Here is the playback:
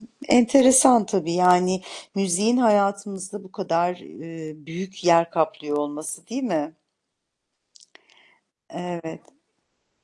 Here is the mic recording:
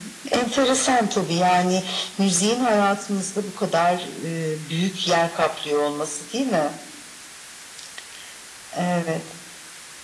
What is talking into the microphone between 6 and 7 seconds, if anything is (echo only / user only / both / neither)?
echo only